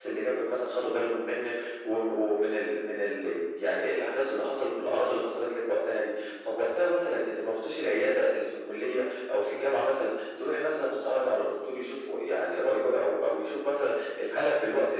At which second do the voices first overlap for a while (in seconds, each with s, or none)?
none